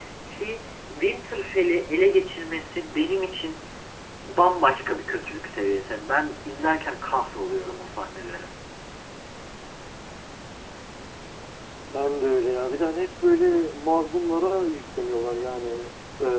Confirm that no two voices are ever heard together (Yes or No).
Yes